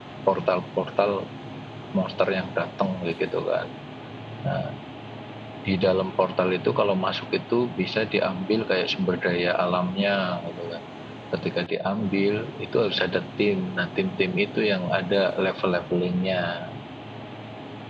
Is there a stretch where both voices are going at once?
No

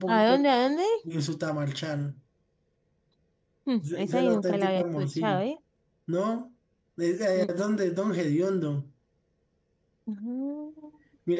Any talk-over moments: Yes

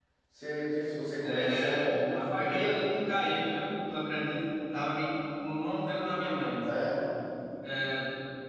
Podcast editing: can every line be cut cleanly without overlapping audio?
No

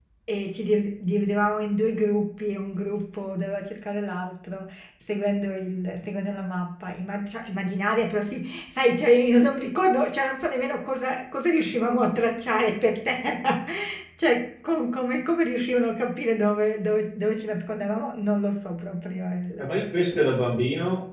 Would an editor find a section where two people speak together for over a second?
No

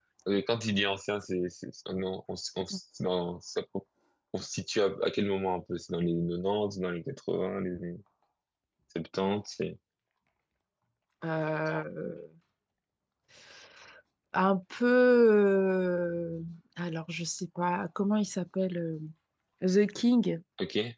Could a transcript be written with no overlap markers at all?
Yes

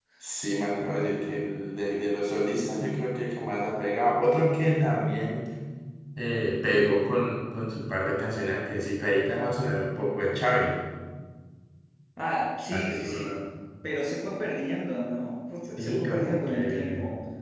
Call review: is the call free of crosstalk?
No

